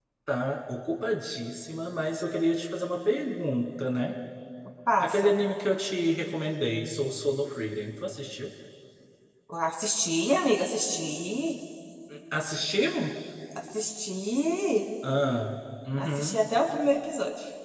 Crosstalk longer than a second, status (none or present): none